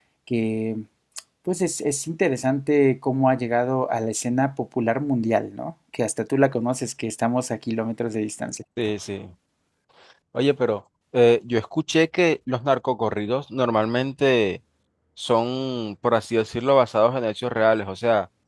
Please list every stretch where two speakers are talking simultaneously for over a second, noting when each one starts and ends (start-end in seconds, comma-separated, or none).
none